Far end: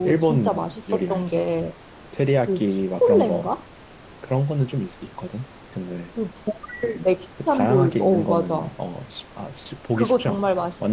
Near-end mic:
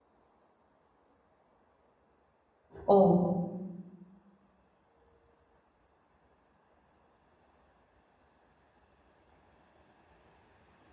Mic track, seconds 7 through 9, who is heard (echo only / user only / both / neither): neither